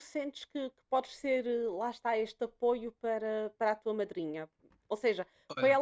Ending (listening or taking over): listening